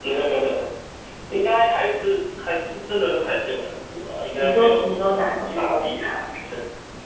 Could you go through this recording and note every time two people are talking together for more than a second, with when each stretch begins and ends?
4.4-6.1

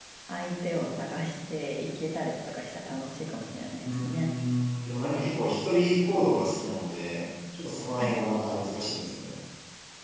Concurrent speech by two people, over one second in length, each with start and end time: none

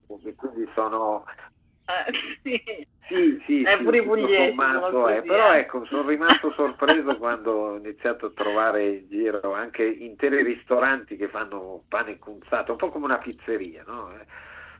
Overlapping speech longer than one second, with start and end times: 3.7-5.6

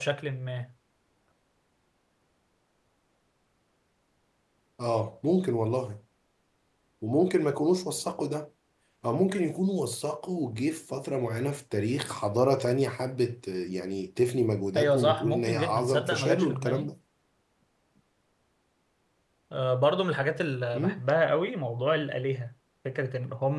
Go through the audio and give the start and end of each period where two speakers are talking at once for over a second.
14.8-16.9

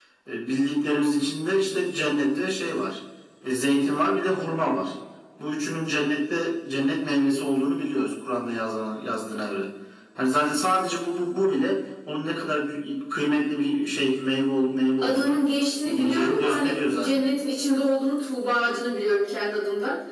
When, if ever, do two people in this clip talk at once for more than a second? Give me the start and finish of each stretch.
15.9-17.3

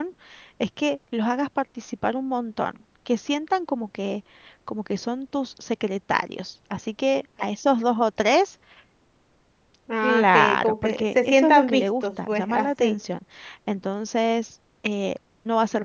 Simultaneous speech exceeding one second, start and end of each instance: 10.0-13.0

